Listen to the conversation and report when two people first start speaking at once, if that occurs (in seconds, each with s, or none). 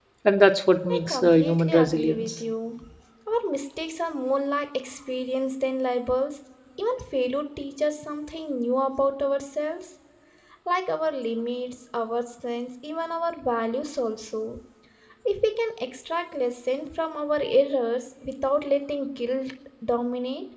0.9 s